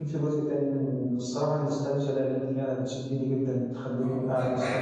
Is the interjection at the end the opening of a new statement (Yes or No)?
Yes